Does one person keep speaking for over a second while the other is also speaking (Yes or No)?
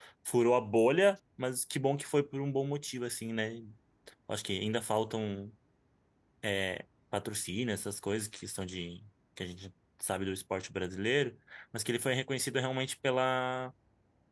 No